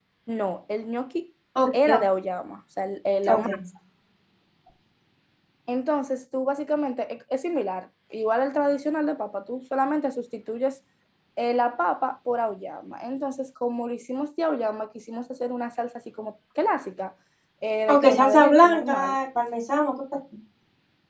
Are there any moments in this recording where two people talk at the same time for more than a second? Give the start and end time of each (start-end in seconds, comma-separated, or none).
17.9-19.2